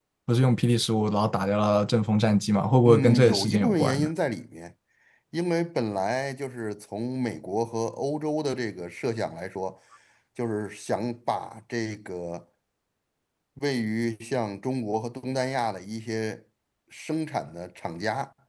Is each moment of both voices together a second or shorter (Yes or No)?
No